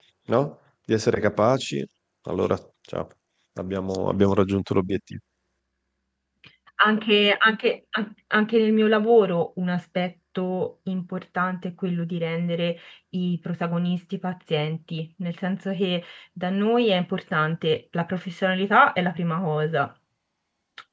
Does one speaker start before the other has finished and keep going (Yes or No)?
No